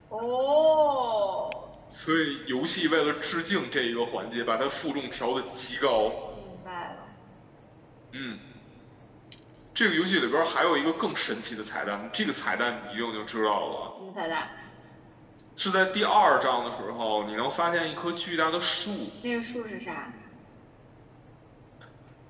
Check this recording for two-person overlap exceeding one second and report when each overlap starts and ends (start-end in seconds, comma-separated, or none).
none